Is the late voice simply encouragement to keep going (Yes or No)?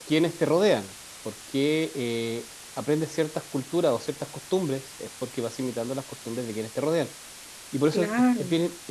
Yes